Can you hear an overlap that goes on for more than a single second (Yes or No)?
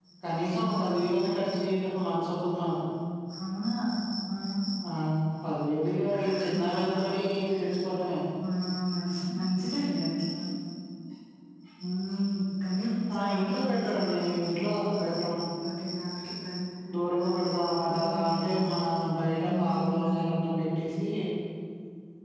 Yes